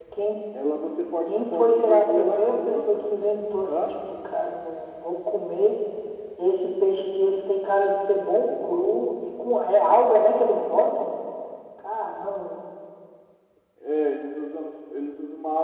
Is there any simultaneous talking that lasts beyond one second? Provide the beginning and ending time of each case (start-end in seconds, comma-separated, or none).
1.3-2.8